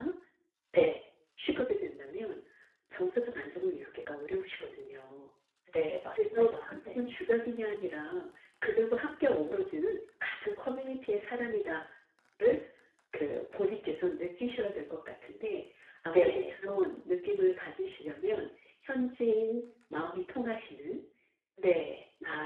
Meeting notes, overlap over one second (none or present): none